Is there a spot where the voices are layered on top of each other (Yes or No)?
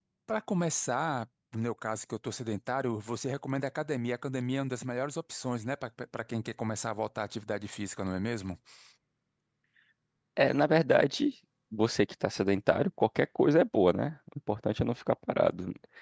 No